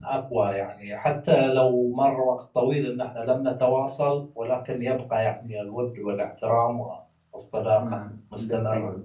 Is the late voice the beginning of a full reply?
Yes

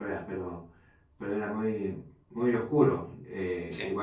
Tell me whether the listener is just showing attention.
Yes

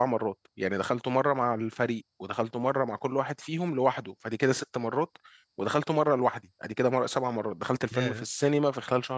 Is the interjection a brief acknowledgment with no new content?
Yes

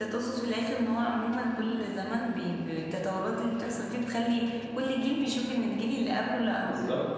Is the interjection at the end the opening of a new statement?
Yes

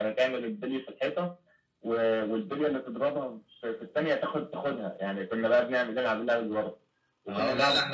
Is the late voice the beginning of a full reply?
Yes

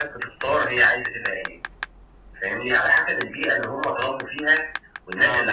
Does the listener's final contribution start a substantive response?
No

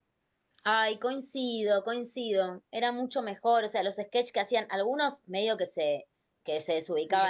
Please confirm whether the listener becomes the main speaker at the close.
No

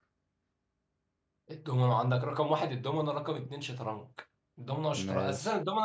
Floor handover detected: No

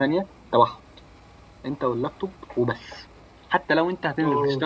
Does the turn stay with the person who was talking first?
Yes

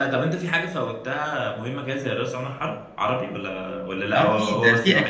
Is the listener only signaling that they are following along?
No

